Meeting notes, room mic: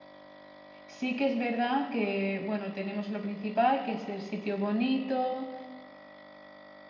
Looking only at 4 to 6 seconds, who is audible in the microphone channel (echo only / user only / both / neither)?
user only